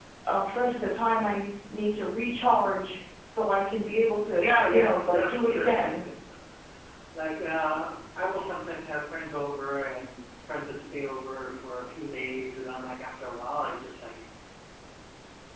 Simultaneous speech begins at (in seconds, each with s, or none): 4.3 s